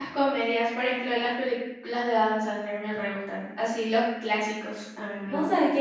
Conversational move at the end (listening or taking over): taking over